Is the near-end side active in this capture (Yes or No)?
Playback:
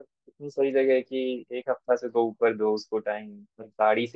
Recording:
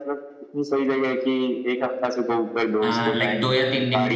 Yes